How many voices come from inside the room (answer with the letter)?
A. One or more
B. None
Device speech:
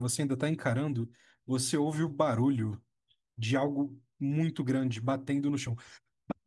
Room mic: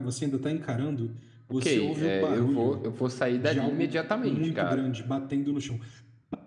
A